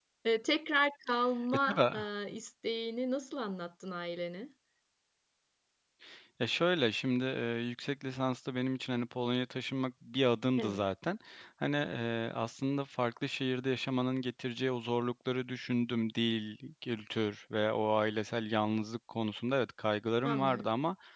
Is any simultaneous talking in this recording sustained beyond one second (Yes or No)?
No